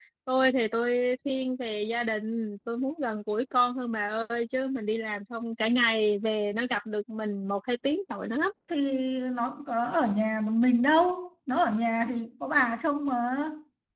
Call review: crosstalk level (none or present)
none